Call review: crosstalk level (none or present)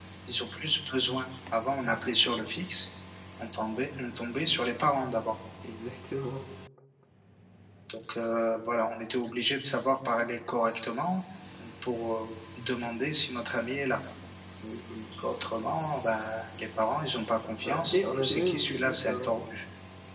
present